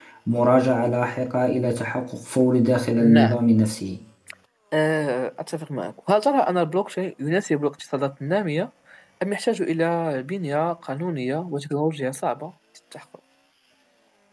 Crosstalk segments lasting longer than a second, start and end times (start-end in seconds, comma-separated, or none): none